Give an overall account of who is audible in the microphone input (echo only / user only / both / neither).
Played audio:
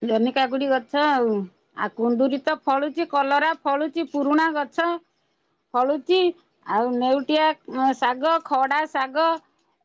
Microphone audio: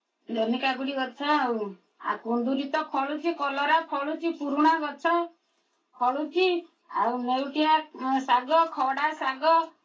echo only